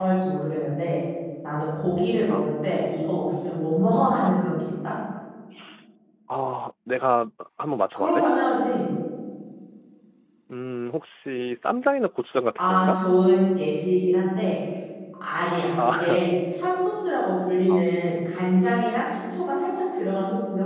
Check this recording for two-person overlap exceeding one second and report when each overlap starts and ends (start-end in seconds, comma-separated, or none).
none